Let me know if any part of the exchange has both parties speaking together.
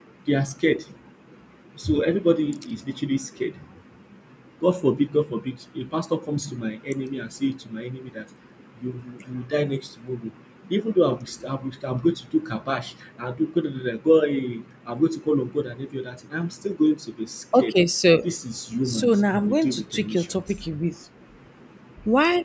Yes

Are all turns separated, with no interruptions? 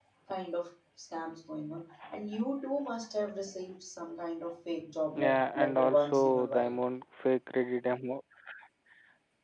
No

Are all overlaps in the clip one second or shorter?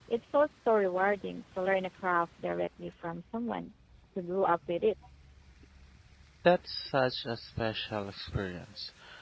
Yes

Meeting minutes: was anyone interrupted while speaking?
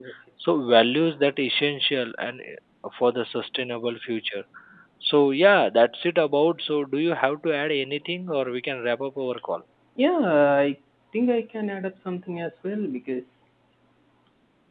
No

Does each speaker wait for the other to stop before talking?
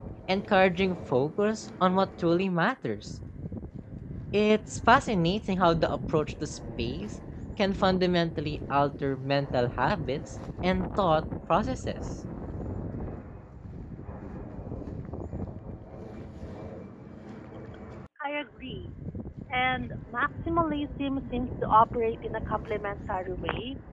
Yes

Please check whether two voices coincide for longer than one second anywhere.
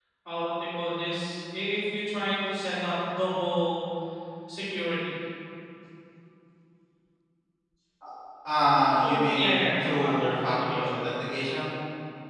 Yes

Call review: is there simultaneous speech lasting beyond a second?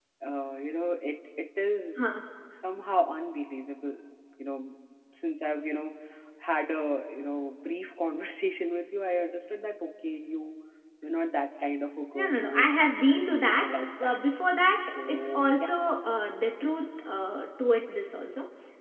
Yes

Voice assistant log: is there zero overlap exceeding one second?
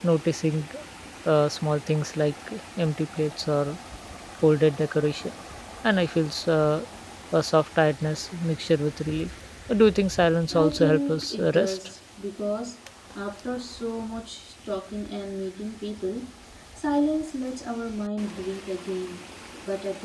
No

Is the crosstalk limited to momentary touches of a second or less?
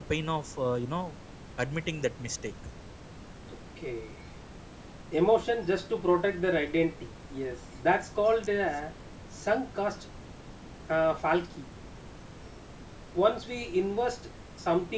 Yes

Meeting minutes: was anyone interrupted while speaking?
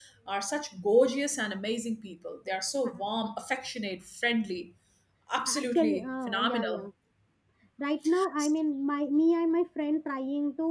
Yes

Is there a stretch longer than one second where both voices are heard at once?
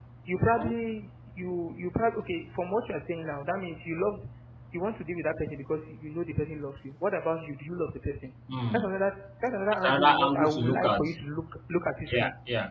Yes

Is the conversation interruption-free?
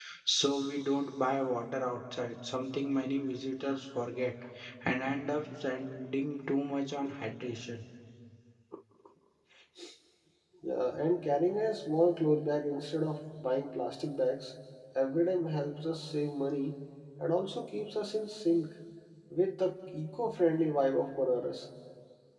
Yes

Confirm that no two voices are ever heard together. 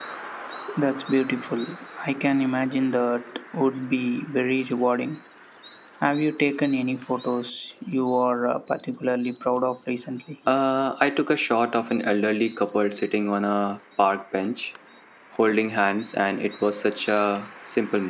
Yes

